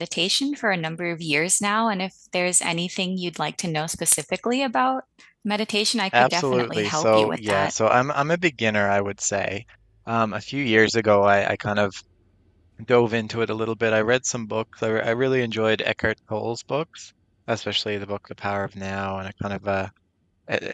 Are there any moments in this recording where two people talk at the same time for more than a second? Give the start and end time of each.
6.1-7.7

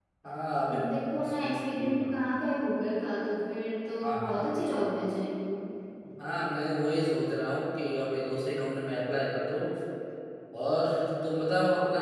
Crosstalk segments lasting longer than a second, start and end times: 0.7-2.2

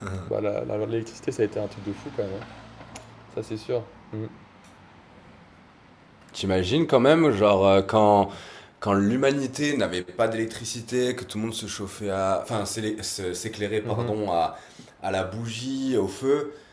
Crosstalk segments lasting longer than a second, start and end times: none

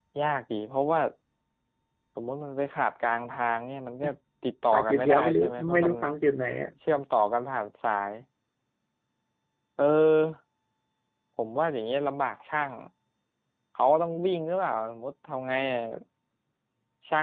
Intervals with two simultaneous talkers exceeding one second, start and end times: 4.7-5.9

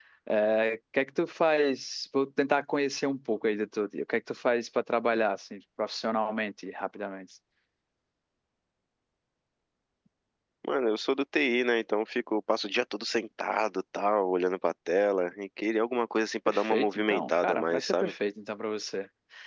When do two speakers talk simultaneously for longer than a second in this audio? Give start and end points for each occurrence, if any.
16.5-18.1

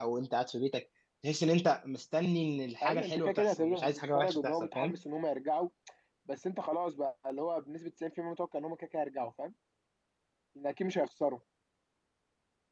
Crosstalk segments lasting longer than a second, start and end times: 2.8-5.0

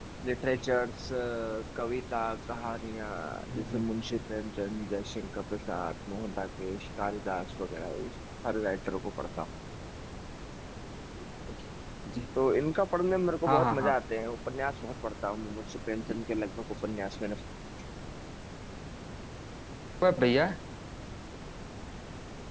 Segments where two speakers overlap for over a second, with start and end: none

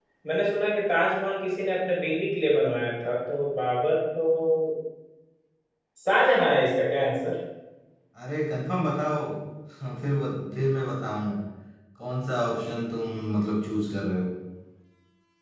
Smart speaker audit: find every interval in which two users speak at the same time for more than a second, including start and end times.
none

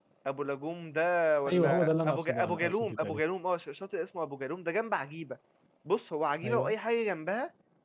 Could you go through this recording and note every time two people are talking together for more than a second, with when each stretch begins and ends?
1.5-3.2

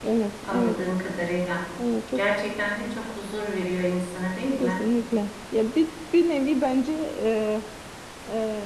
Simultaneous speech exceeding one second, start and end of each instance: none

